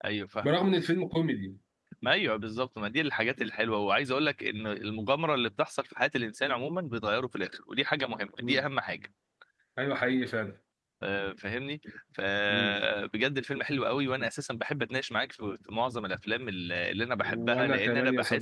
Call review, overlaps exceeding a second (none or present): present